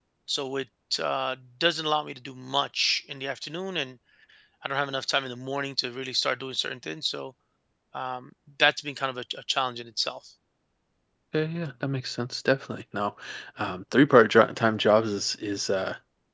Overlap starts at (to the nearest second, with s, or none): none